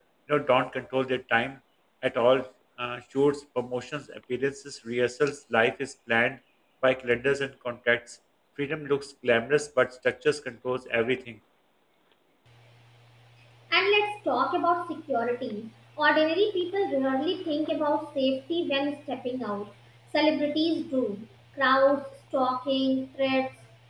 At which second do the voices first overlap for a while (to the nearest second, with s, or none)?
none